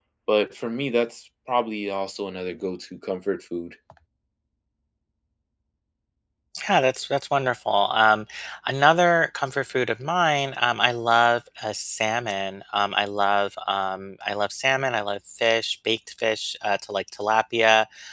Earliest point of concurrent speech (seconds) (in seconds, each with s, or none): none